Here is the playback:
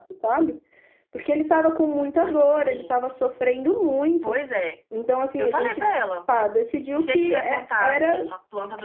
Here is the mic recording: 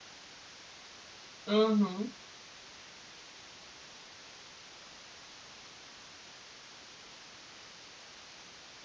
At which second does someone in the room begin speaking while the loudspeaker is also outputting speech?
1 s

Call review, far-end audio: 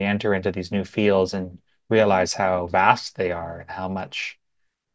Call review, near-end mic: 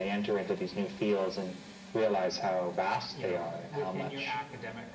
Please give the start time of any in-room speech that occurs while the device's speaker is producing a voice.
3 s

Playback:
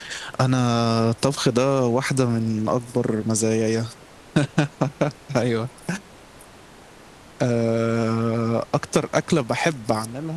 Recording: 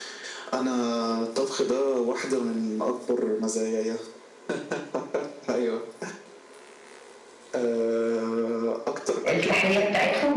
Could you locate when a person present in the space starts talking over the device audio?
9 s

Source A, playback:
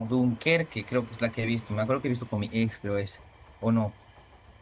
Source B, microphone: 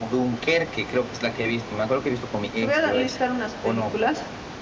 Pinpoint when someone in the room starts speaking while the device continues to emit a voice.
3 s

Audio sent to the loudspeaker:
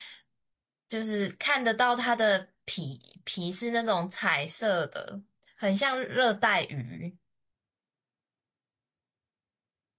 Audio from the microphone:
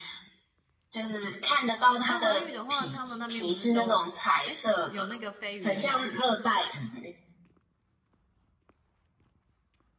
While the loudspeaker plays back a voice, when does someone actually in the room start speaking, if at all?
2 s

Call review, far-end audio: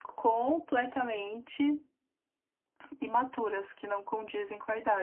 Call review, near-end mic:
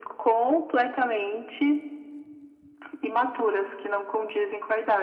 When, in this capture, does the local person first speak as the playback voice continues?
none

